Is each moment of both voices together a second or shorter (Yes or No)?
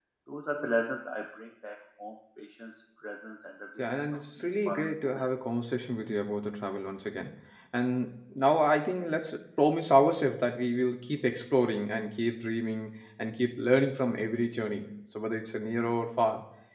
No